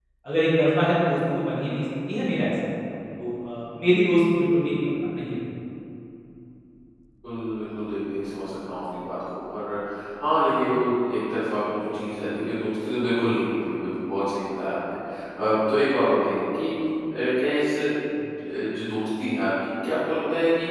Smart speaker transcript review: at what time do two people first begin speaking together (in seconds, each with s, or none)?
none